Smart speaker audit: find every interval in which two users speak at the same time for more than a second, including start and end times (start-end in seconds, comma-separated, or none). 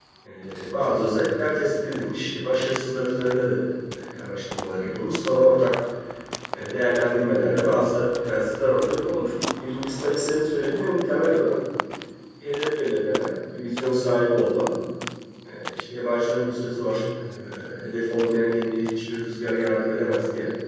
none